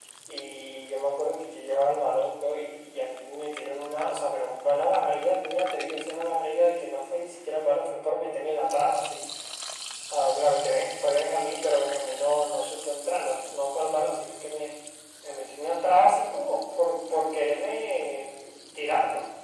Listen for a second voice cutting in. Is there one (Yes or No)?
No